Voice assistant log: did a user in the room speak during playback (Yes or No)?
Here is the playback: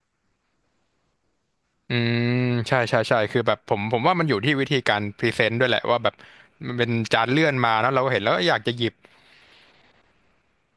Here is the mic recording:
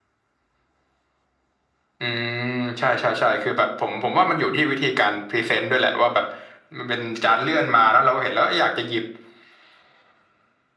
No